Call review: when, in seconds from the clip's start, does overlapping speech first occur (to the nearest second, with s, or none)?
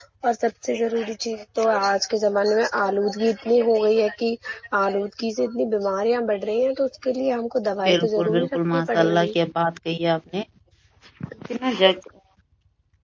8 s